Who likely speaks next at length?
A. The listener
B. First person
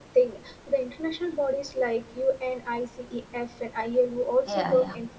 B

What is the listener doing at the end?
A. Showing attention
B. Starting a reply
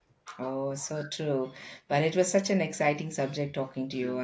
A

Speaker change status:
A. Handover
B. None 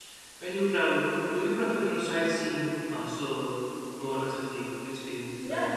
A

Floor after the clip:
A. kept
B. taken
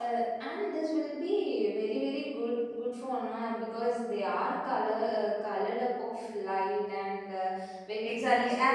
B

